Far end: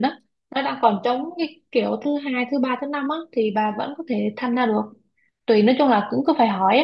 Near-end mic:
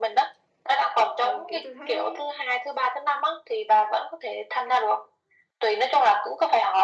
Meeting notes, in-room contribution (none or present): present